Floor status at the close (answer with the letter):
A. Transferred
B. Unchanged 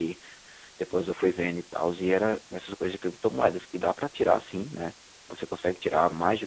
B